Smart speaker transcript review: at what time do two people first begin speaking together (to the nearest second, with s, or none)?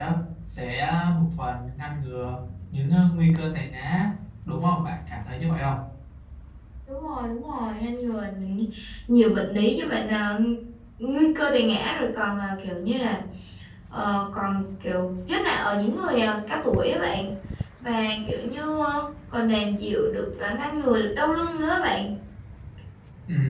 none